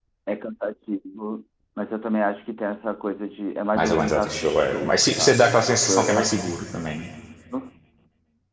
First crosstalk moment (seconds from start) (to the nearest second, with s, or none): 4 s